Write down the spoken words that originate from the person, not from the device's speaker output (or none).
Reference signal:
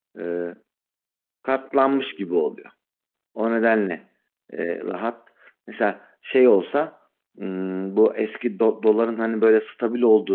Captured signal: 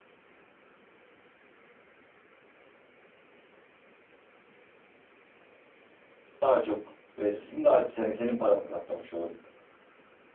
daha çok verirsin. Daha senin, senin paranı katlamış olurum.